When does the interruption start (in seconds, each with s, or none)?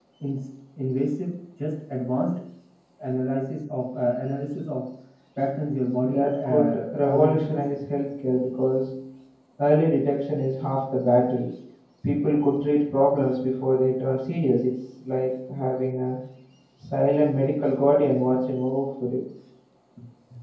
6.0 s